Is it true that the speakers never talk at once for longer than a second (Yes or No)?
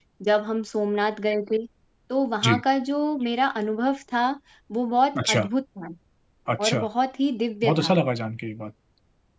Yes